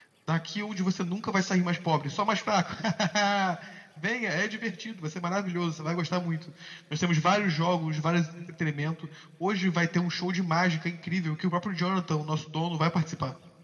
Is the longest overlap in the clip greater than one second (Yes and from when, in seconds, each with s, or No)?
No